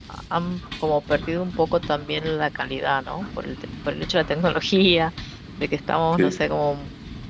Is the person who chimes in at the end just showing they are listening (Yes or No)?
Yes